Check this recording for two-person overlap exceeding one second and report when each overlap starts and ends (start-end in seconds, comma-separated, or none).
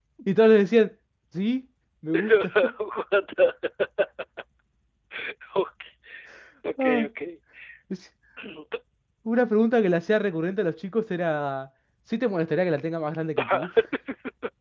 none